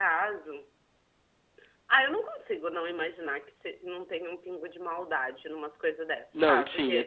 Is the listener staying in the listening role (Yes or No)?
No